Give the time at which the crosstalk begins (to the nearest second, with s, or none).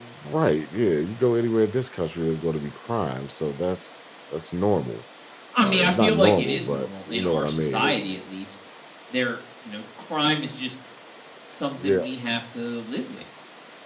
6 s